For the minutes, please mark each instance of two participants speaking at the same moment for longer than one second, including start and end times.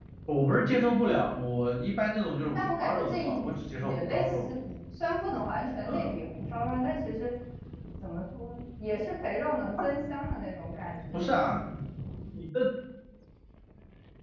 2.5-4.5

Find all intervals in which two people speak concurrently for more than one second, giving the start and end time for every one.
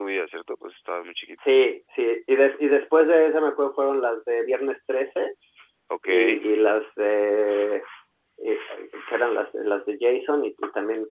none

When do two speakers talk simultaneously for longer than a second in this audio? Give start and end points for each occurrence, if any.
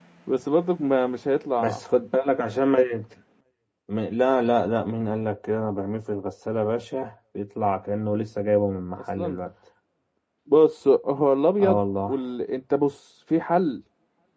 none

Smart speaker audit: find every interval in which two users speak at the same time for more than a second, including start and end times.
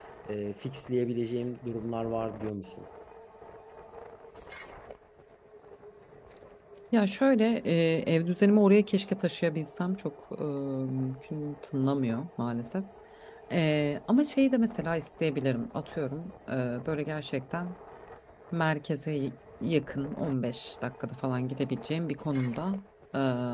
none

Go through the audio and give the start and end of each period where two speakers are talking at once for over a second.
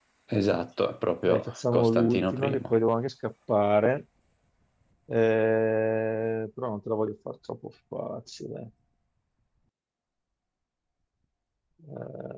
1.3-2.7

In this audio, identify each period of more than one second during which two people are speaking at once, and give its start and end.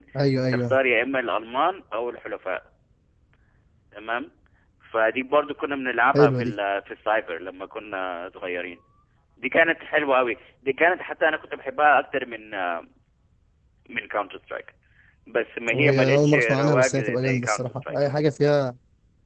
15.7-18.0

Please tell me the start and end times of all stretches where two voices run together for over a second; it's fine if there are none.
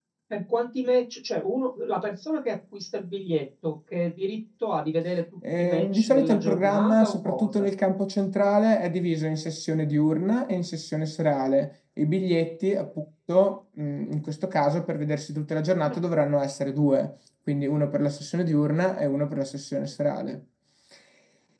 5.6-7.6

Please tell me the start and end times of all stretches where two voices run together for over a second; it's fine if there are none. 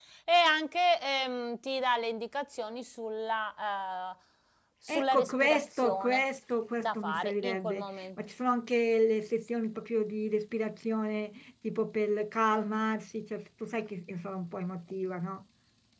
4.9-6.2, 6.8-8.1

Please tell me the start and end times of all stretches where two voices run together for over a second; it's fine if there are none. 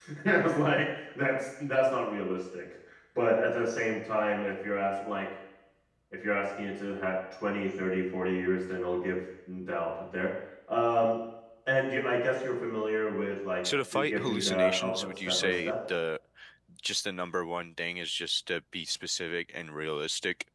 13.9-15.7

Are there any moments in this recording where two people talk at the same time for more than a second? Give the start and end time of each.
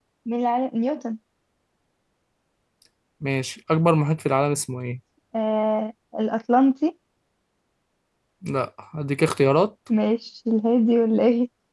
none

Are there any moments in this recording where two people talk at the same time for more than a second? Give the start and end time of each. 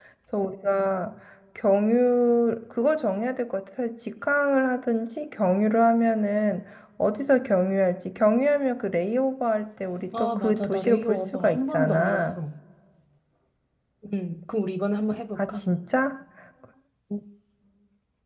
10.1-12.4

